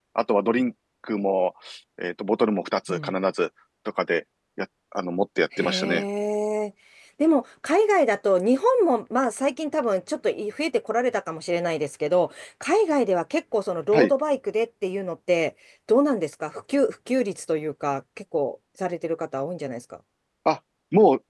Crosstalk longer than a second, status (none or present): none